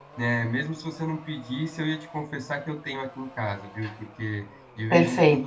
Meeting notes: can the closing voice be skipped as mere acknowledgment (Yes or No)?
Yes